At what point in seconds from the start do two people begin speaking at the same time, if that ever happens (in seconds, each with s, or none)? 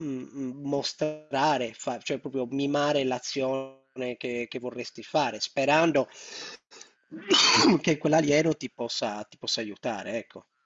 none